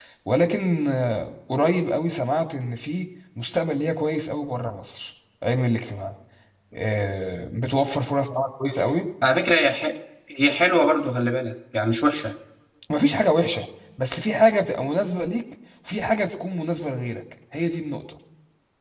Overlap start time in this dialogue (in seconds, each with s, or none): none